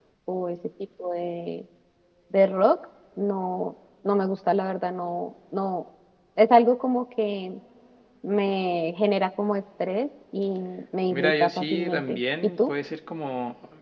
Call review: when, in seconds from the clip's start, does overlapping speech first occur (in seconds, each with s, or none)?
11.1 s